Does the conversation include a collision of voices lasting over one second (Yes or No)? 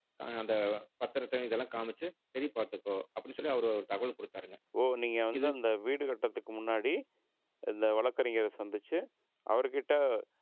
No